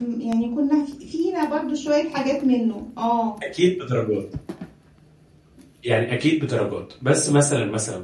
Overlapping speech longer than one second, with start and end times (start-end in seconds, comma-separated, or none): none